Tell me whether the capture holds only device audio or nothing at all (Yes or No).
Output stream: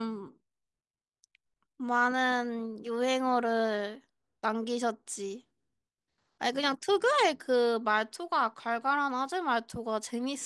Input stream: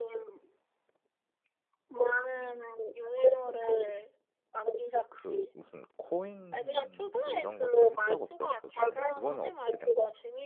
No